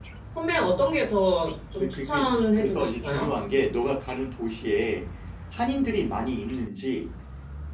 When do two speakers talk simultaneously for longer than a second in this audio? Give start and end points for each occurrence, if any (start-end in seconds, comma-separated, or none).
1.8-3.3